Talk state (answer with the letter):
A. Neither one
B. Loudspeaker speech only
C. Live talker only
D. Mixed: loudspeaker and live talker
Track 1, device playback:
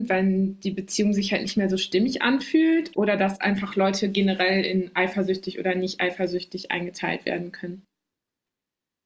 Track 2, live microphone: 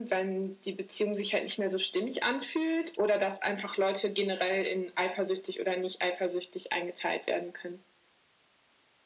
B